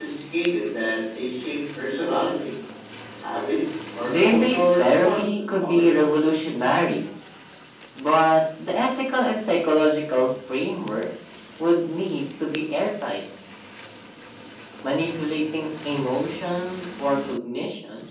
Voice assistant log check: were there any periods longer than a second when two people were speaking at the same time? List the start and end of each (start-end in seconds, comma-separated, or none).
4.1-6.1